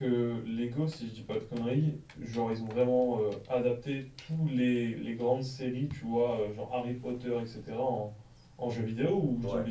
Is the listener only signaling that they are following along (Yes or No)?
No